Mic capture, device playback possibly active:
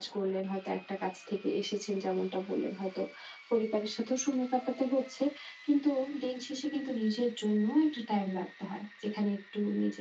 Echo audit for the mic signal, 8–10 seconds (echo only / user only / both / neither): echo only